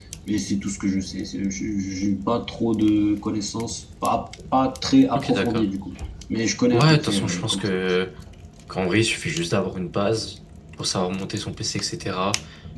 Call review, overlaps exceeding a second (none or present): present